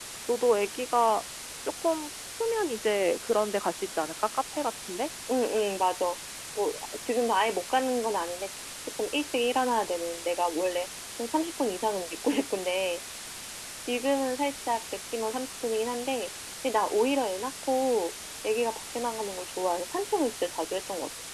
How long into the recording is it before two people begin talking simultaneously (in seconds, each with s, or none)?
none